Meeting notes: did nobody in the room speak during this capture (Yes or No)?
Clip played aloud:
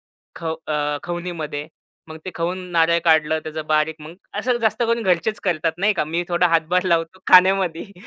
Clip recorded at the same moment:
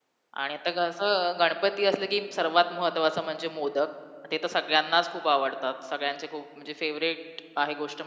No